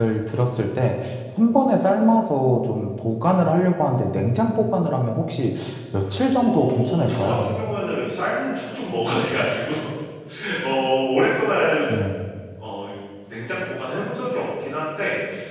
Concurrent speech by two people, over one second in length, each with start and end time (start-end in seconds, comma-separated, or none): 6.4-7.6